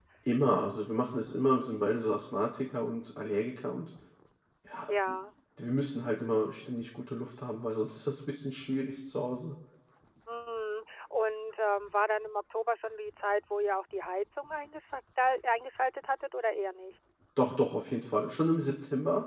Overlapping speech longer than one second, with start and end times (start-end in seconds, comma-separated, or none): none